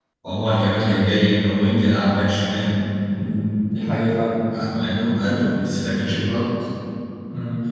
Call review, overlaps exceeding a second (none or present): none